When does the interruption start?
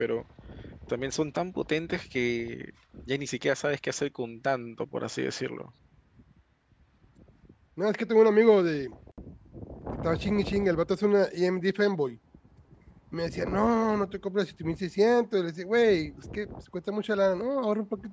none

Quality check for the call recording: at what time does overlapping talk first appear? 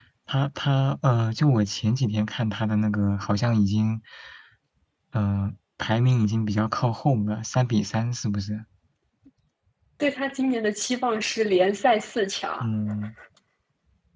none

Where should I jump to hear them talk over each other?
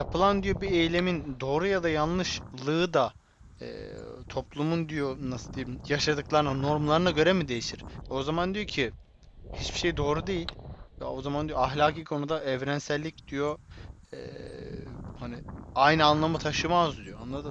none

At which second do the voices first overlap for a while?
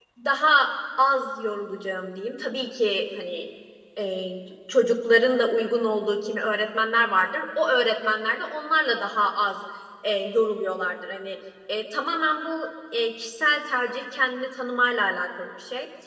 none

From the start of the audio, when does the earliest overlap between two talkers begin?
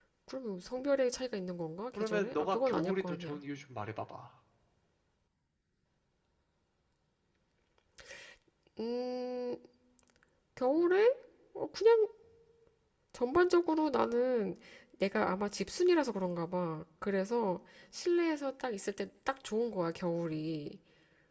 2 s

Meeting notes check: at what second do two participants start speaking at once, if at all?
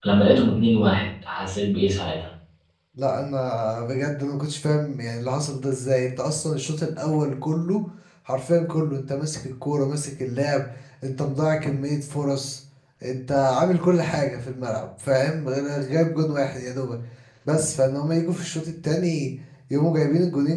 none

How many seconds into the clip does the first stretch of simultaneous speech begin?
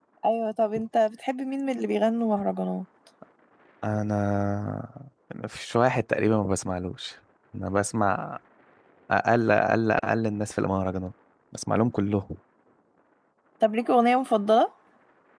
none

